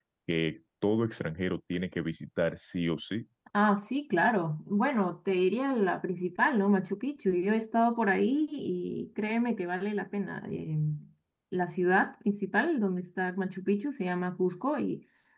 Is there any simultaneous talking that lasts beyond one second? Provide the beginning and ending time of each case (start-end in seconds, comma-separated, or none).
none